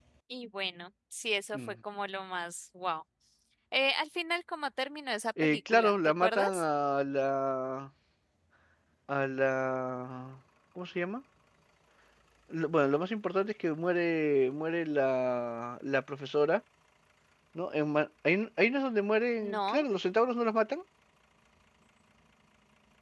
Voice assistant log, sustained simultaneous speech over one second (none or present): present